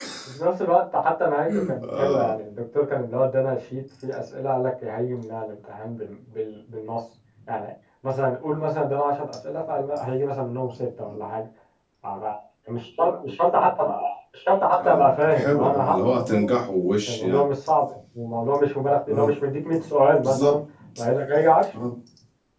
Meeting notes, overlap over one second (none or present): present